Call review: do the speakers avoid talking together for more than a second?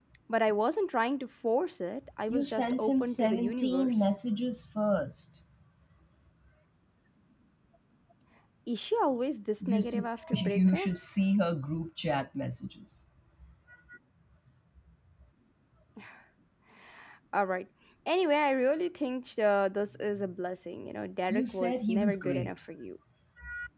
No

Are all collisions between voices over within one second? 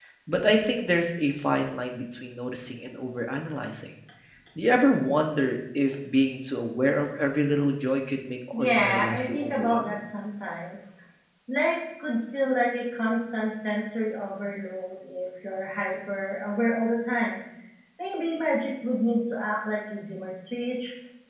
No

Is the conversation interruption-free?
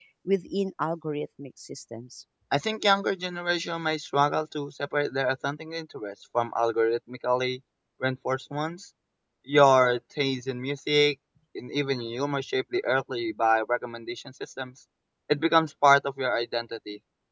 Yes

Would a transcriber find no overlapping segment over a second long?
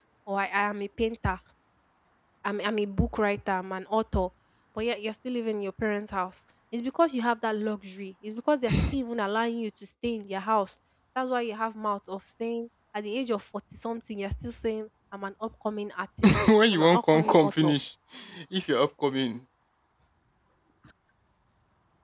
No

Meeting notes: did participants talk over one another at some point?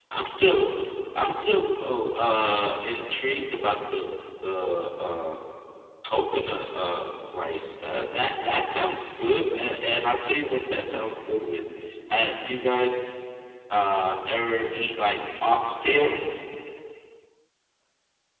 No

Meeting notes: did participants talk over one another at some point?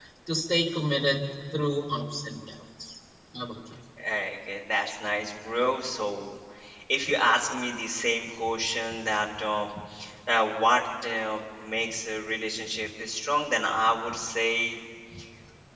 No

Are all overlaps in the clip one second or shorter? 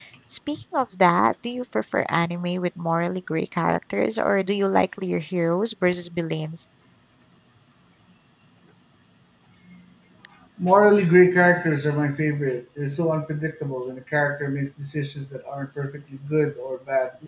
Yes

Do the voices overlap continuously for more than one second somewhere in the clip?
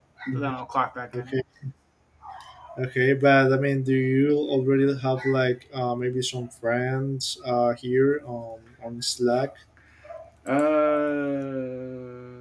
No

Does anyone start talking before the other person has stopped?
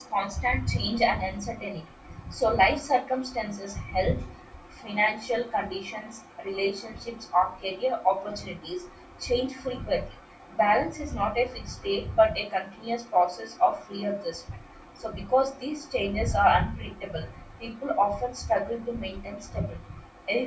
No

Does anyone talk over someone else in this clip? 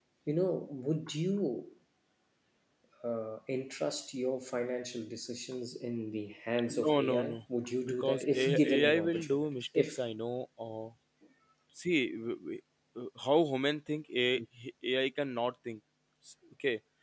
Yes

